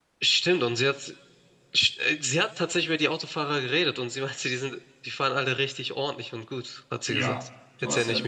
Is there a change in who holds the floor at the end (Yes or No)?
Yes